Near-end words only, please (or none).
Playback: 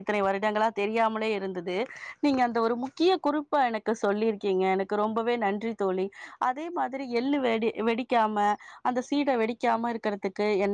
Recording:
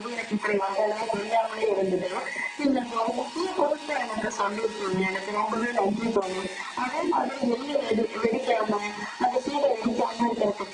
none